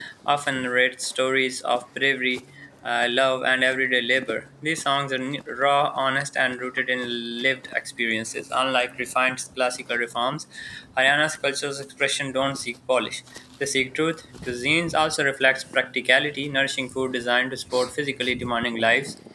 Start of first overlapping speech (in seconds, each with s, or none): none